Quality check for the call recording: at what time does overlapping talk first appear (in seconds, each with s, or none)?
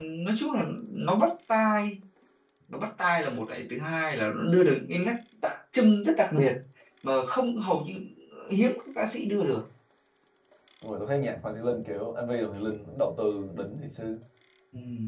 none